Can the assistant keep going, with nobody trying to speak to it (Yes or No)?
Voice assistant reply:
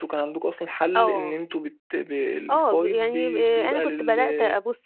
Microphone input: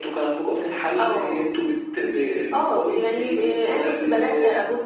Yes